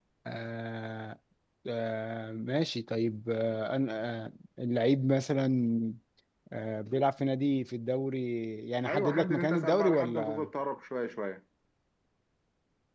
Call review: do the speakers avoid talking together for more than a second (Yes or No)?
No